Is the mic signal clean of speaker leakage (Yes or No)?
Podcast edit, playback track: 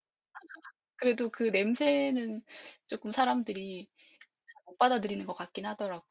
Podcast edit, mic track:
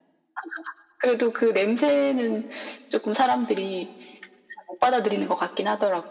No